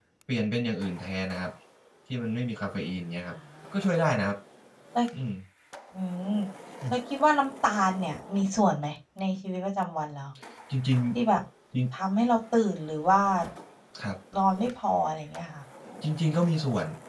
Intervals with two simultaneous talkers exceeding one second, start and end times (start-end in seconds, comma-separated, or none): none